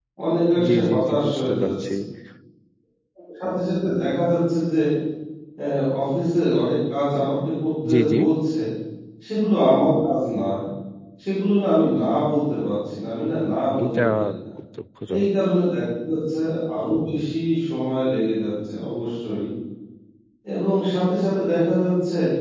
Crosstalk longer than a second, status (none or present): present